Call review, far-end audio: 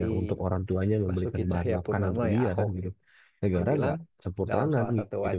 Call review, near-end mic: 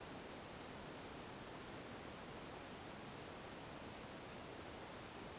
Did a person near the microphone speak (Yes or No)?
No